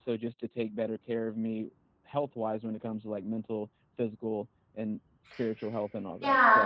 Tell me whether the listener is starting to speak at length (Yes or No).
Yes